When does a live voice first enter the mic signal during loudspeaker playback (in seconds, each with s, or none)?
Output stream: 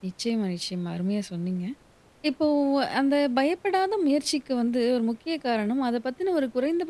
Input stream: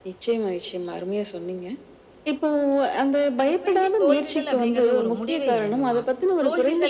3.5 s